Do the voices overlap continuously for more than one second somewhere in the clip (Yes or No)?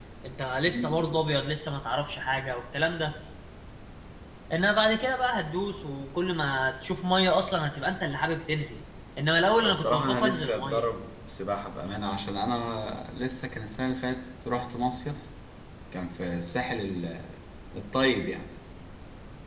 Yes